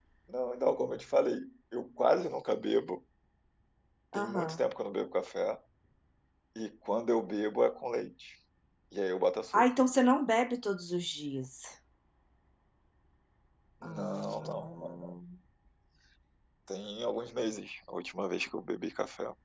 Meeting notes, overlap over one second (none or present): present